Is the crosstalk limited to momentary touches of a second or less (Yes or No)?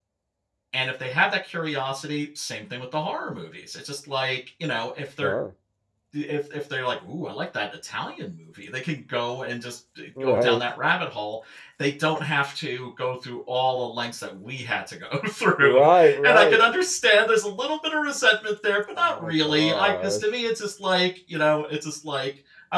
No